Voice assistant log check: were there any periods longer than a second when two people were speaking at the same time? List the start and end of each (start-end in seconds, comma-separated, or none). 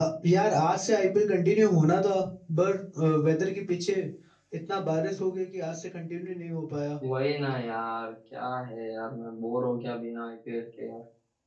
none